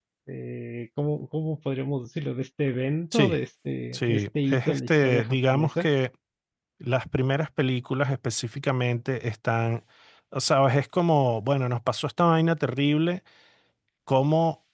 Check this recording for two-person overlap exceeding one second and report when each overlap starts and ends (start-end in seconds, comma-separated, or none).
4.0-5.9